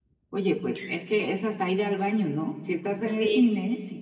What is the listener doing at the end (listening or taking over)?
listening